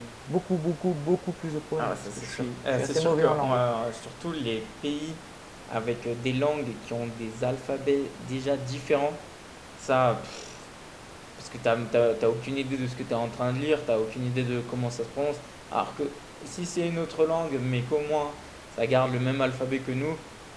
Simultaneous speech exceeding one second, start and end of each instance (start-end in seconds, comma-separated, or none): 1.8-3.6